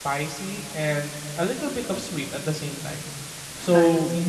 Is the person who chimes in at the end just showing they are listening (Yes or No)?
Yes